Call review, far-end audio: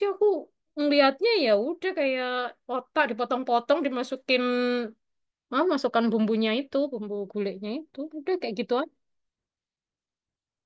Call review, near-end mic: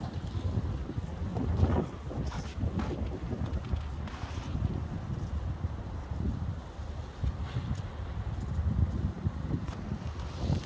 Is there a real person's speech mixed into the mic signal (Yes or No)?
No